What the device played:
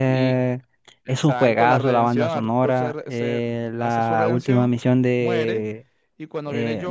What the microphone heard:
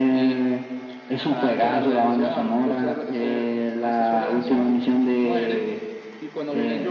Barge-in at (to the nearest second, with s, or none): none